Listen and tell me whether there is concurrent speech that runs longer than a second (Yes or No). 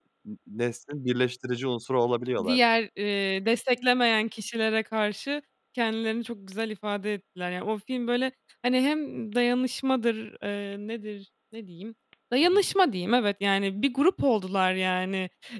No